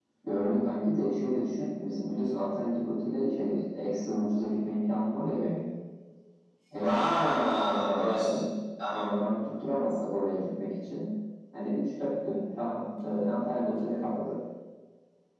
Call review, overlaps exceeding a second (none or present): present